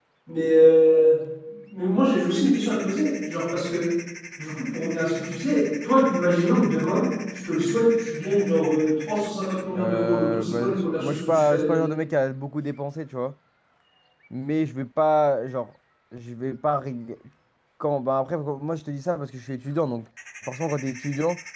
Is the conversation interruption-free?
No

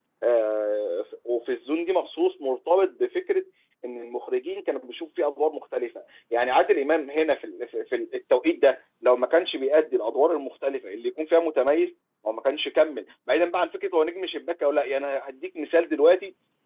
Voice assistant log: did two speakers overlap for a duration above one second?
No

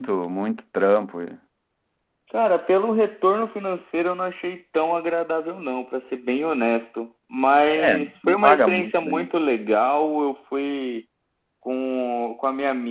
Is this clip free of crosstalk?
No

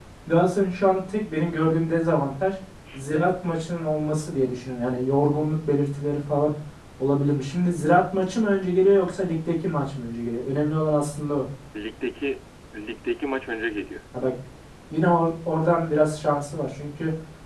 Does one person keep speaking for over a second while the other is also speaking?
No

